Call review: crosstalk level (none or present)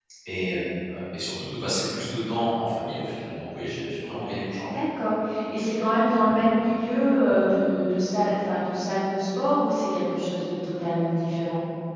none